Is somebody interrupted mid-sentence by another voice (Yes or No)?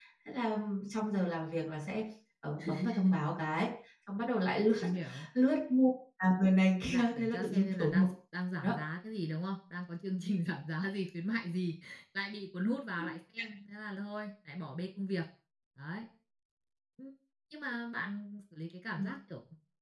Yes